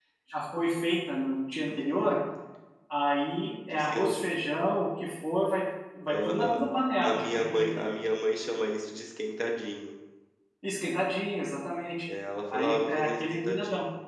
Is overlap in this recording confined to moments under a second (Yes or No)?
No